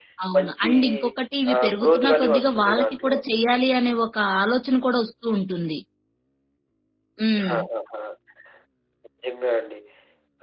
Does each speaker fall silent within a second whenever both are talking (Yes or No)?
No